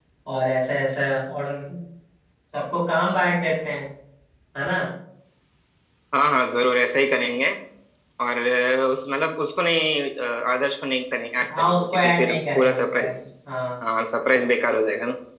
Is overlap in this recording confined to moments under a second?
No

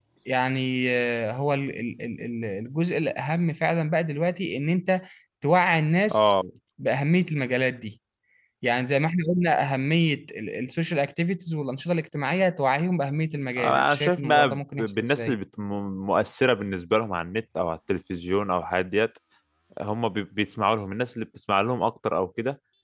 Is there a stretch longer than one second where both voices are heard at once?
Yes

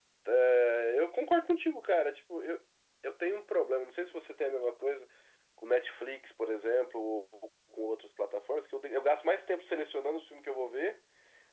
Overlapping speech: No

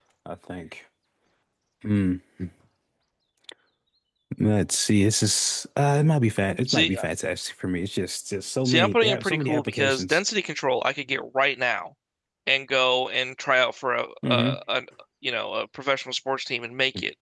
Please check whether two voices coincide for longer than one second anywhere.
Yes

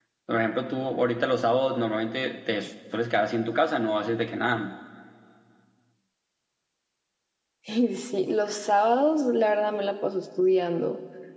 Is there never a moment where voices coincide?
Yes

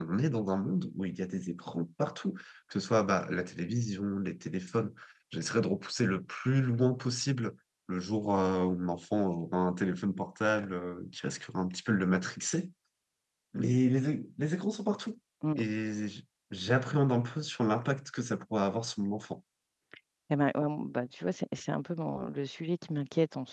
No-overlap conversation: Yes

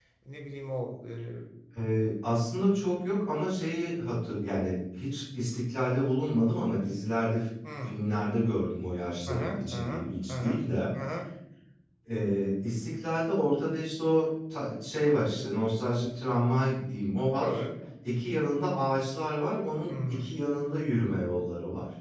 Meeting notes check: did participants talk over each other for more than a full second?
Yes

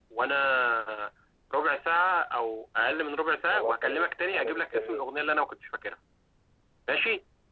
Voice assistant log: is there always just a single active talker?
No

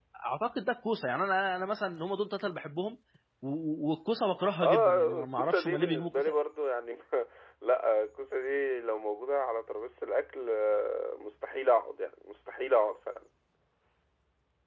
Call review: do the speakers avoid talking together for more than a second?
No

